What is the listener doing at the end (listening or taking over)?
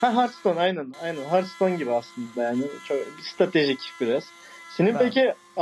listening